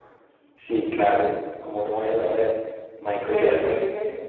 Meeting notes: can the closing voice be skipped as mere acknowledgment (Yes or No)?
No